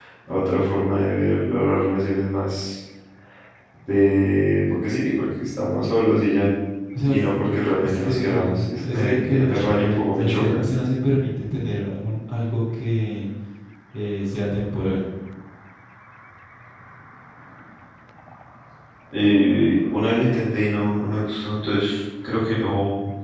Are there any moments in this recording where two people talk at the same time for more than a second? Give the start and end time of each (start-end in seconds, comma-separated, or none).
7.8-10.6